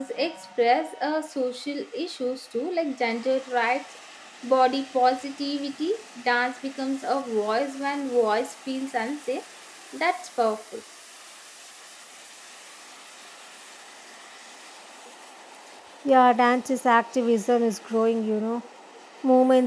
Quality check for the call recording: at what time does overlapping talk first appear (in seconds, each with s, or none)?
none